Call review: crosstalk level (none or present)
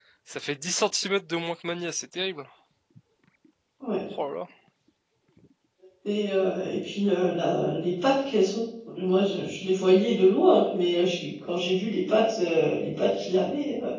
none